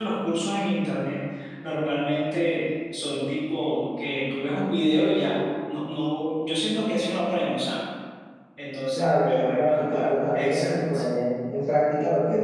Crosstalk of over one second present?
Yes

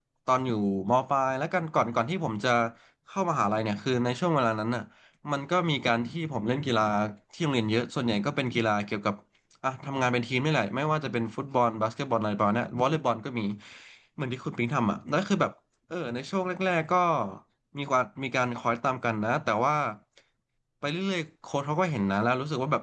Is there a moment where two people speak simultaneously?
No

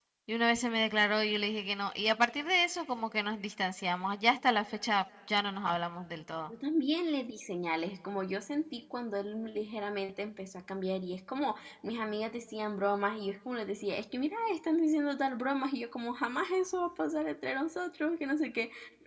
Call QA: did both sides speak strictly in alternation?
Yes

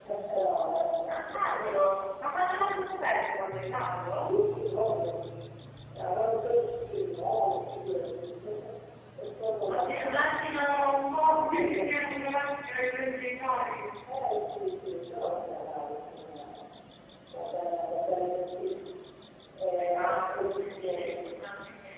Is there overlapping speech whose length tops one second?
Yes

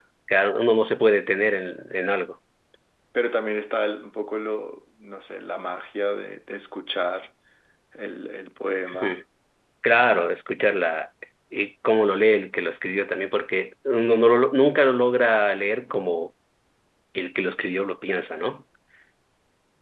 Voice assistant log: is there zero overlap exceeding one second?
Yes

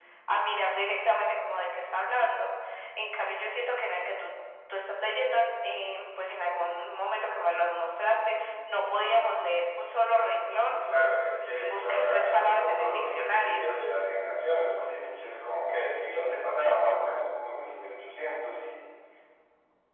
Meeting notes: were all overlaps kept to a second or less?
No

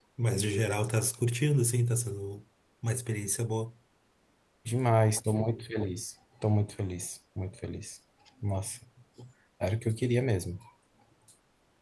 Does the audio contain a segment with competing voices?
No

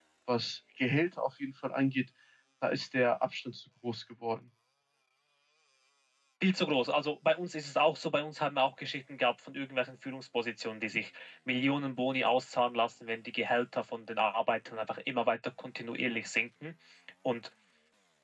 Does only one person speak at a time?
Yes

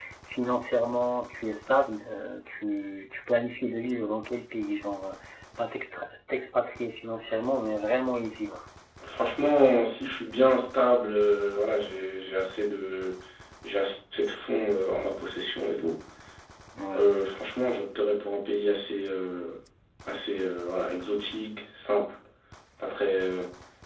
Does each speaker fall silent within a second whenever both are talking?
Yes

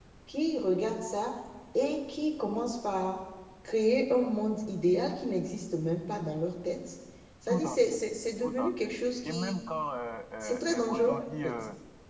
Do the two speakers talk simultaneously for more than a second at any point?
Yes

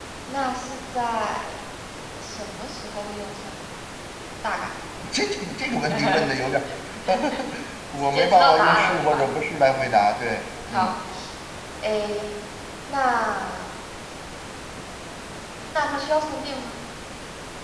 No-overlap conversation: No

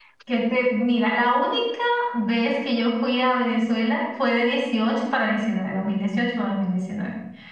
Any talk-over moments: No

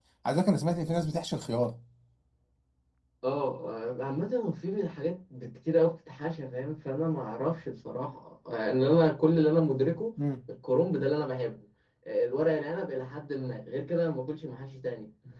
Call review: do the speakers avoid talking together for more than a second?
Yes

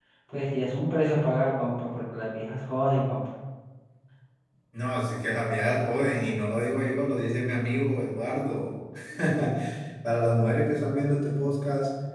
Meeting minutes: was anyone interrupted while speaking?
No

